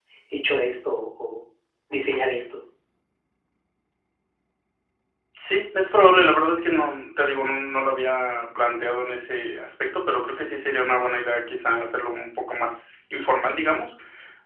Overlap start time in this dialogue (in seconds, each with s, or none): none